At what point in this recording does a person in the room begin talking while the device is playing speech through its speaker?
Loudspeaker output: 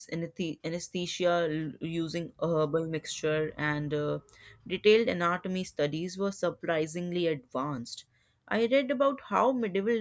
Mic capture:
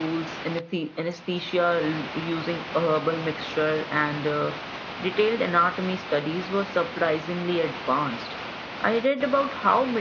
none

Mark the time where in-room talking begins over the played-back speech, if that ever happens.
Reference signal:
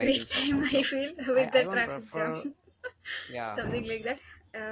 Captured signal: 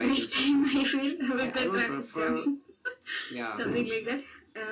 none

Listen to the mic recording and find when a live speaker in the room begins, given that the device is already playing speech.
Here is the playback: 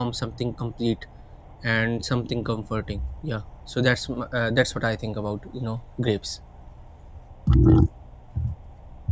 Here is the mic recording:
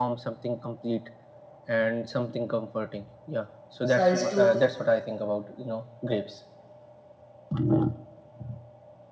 3.9 s

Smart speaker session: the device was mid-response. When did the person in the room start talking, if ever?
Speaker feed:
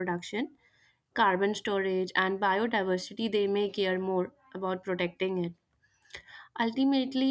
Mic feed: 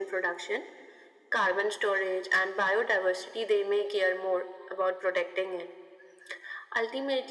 none

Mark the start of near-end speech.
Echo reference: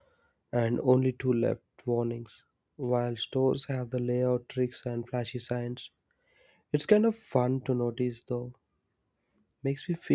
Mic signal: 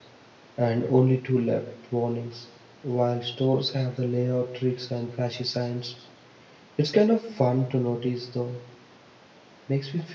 none

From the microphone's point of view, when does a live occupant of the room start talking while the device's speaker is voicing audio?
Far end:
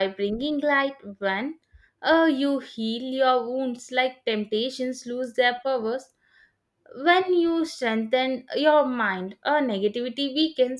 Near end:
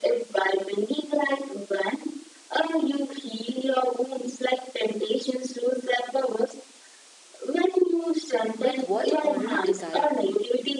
8.6 s

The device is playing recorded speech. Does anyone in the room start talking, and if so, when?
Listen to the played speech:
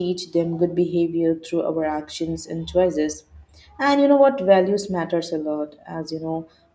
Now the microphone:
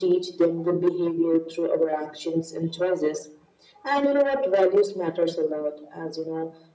none

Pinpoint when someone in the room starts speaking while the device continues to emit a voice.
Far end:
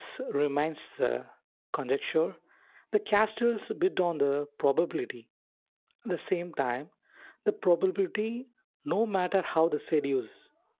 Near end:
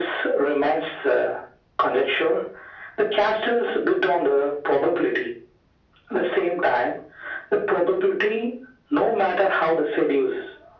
none

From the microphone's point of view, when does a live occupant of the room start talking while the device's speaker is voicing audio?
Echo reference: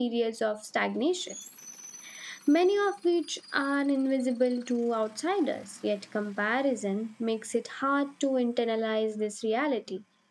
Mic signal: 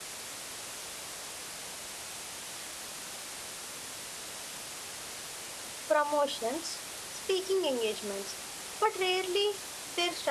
5.9 s

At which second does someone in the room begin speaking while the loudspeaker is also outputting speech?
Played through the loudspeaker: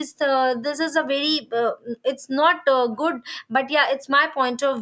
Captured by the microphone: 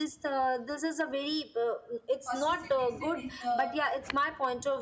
2.2 s

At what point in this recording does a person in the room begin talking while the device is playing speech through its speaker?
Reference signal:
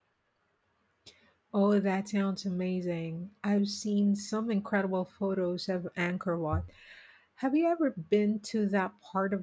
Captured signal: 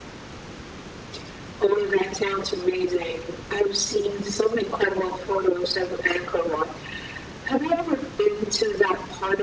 none

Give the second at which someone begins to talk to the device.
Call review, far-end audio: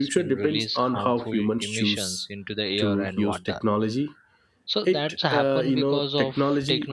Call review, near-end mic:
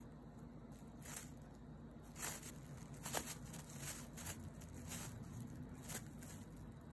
none

